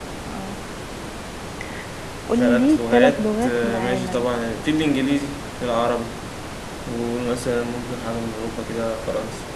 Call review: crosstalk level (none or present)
present